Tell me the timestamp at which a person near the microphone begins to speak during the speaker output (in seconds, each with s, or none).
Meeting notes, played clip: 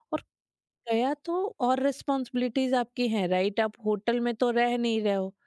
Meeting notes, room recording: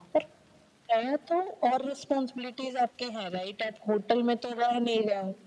none